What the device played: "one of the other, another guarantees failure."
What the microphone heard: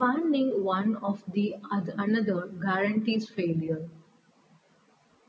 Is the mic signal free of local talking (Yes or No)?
Yes